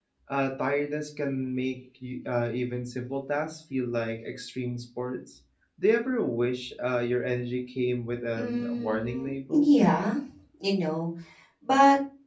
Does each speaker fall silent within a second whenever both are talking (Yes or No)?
No